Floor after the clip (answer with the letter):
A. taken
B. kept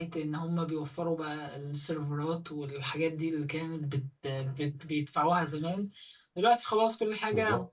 B